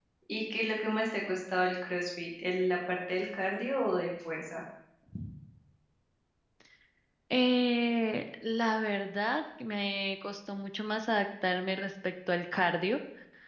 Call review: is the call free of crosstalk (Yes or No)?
Yes